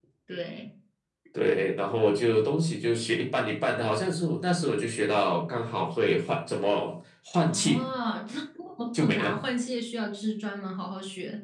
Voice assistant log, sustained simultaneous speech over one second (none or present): none